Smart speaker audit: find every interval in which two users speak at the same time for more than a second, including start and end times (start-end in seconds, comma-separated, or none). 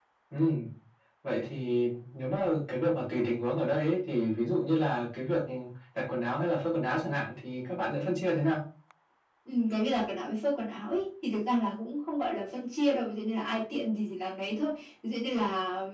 none